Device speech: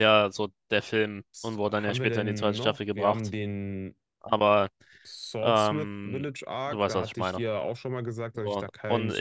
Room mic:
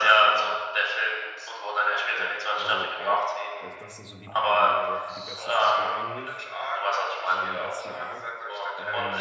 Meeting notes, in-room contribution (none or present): present